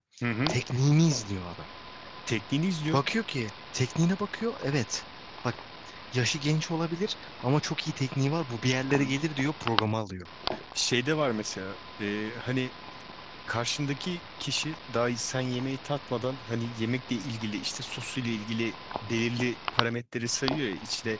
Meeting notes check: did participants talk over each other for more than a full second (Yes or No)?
No